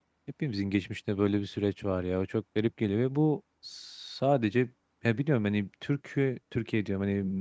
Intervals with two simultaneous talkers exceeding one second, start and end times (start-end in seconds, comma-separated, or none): none